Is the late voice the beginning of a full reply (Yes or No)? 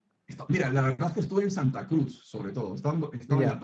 No